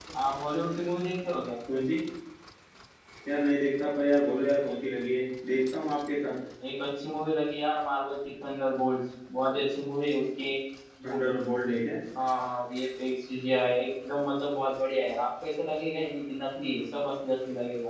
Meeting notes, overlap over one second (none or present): none